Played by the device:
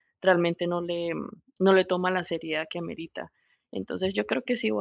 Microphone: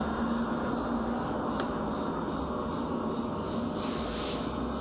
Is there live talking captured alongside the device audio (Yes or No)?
No